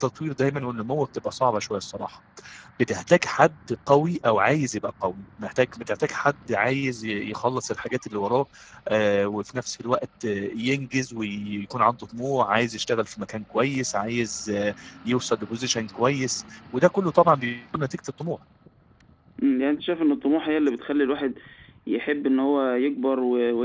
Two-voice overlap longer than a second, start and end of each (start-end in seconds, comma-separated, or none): none